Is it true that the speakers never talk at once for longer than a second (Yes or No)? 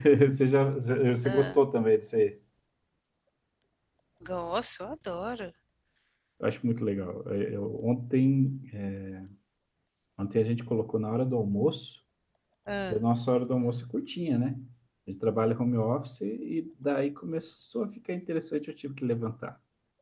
Yes